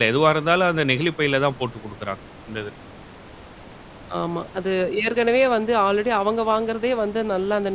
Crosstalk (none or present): none